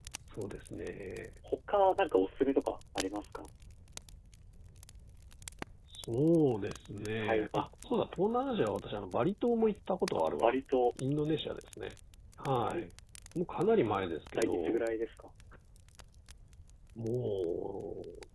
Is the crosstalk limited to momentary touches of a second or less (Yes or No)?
Yes